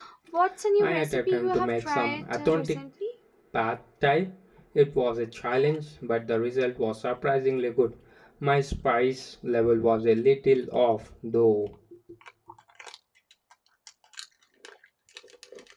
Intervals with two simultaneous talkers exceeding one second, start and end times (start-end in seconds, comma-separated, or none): 0.8-2.8